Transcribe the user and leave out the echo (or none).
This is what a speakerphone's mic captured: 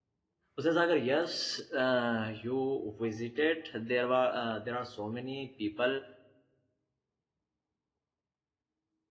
Hussain Sagar, yes, uh, you visited. There were uh, there are so many people,